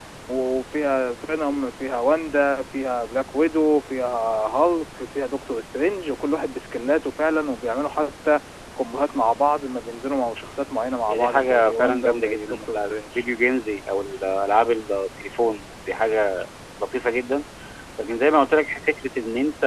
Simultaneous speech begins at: 11 s

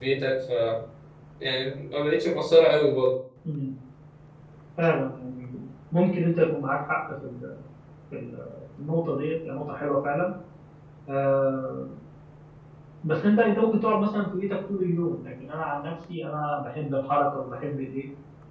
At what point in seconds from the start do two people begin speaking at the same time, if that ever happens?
none

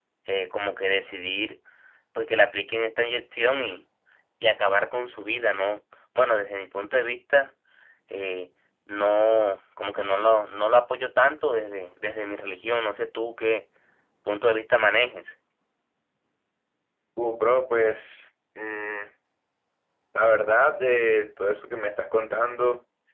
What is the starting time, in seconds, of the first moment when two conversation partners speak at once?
none

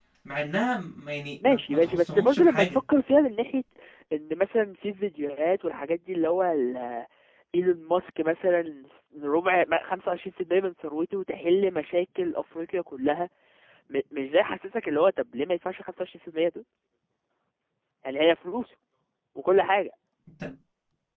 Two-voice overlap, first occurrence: 1 s

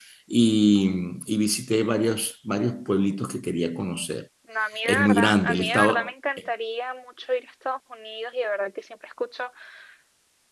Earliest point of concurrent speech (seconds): 5 s

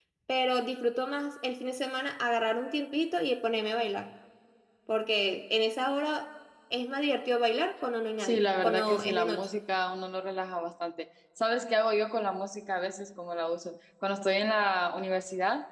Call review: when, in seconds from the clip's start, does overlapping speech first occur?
8 s

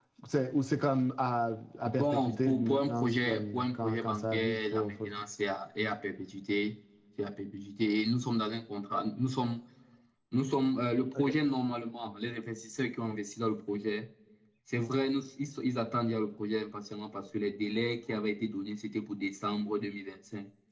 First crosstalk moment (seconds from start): 2 s

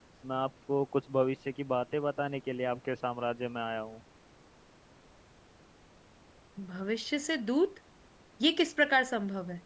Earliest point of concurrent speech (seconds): none

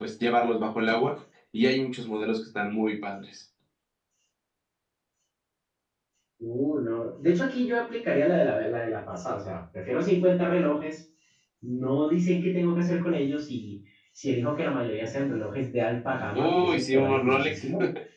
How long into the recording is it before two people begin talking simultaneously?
16 s

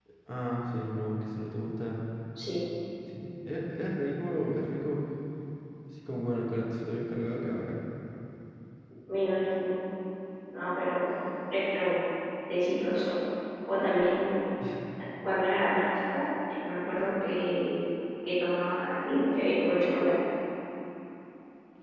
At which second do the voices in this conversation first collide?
none

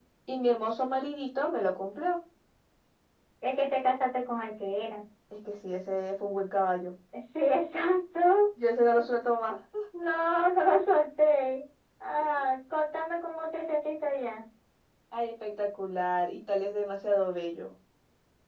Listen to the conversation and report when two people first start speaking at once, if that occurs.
none

